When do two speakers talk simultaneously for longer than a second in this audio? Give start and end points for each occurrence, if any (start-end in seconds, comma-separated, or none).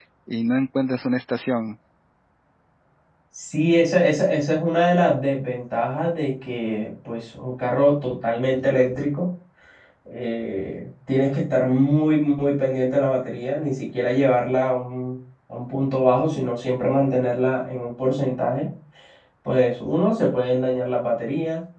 none